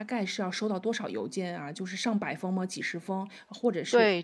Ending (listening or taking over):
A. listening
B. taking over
B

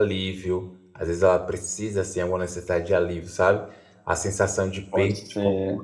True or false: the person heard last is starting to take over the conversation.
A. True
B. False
B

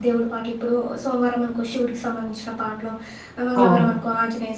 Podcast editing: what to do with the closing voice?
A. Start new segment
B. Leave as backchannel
B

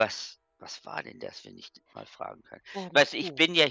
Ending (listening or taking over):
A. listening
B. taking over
A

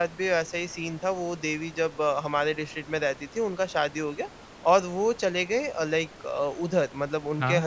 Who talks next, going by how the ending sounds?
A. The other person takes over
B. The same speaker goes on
B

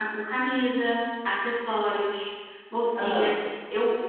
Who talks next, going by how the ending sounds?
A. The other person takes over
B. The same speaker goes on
B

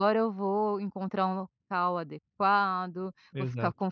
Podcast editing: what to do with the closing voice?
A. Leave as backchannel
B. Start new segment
A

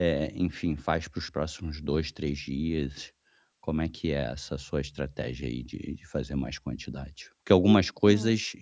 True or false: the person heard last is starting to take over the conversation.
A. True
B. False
B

